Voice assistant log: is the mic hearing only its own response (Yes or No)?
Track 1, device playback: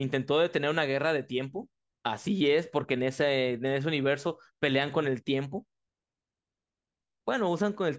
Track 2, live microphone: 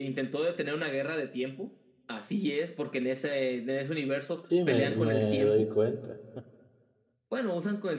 No